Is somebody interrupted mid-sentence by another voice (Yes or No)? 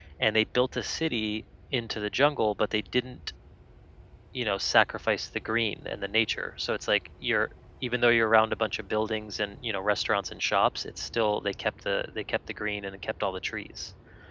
No